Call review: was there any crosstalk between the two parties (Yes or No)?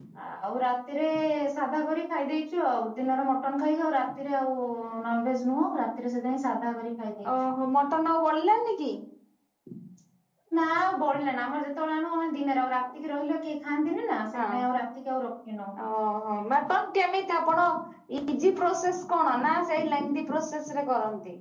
No